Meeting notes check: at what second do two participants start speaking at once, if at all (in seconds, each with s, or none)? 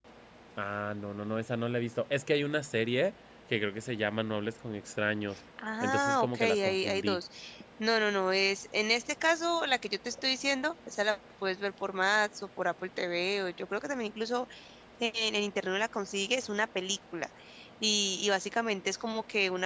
5.6 s